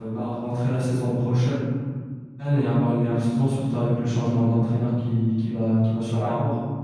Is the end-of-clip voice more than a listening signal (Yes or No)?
Yes